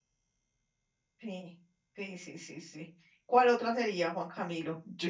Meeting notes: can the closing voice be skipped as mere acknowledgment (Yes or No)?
No